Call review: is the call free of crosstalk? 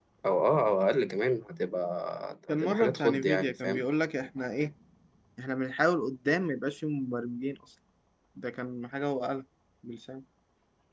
No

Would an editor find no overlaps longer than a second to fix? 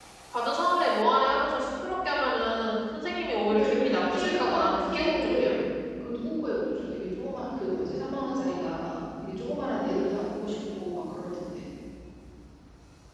No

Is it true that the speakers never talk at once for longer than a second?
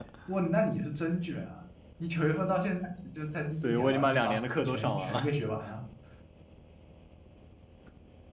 No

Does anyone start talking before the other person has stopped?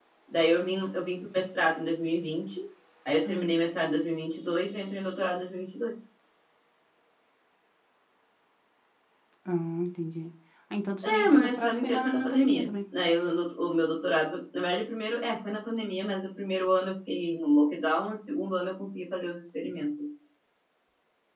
Yes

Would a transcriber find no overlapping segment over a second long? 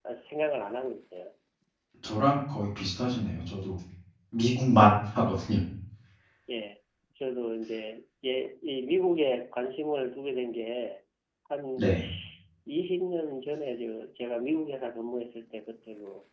Yes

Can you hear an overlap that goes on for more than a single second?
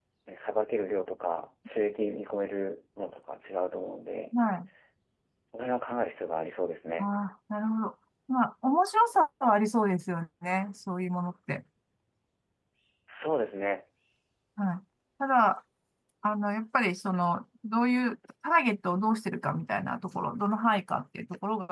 No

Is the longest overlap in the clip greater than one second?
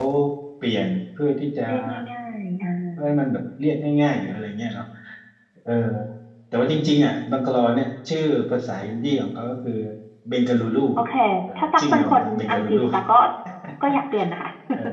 Yes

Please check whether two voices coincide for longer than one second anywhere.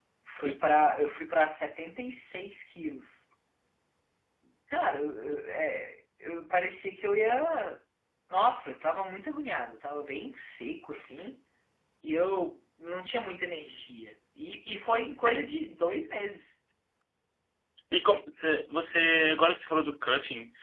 No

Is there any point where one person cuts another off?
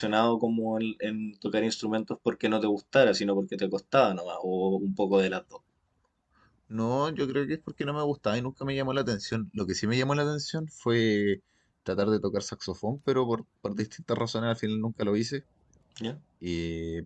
No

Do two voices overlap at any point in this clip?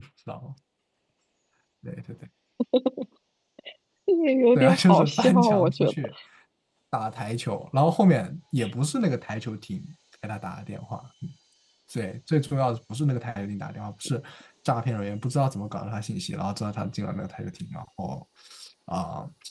Yes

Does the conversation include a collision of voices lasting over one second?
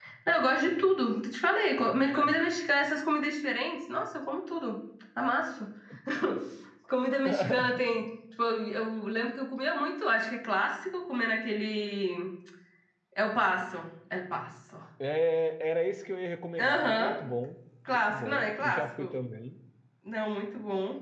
Yes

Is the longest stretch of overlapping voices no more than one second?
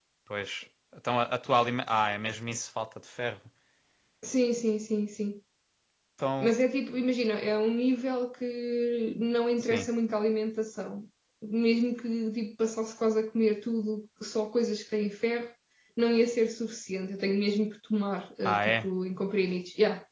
Yes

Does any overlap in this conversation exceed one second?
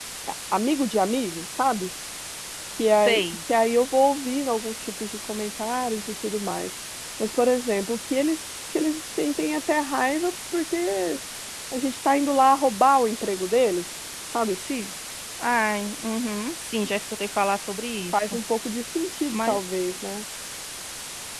No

